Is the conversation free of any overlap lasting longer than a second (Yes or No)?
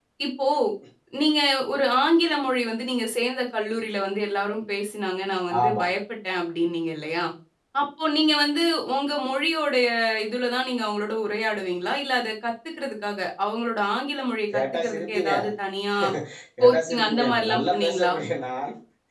No